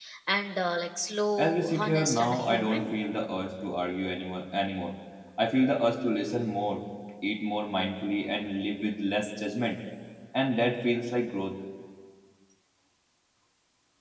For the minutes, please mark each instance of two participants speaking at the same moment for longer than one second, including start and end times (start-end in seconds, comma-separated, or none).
1.4-2.9